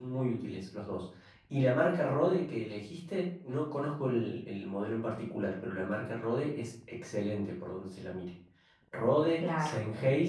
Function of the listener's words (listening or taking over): listening